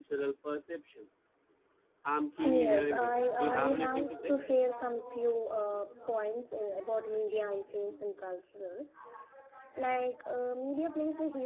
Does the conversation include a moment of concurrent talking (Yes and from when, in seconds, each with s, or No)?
Yes, from 2.5 s